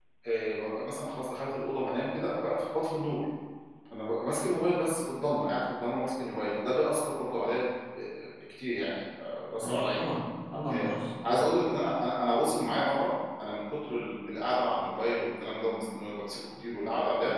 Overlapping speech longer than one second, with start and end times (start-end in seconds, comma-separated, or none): none